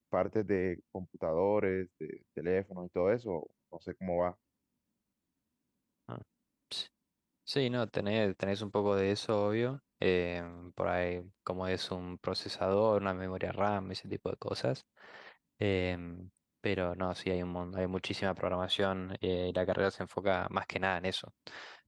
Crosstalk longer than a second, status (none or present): none